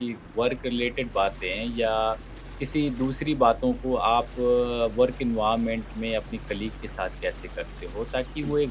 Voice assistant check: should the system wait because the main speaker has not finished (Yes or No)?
Yes